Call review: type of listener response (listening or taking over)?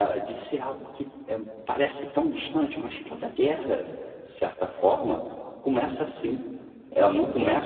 listening